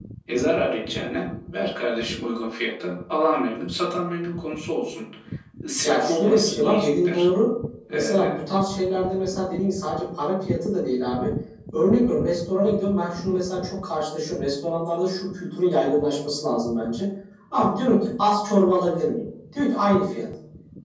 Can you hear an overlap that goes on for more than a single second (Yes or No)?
Yes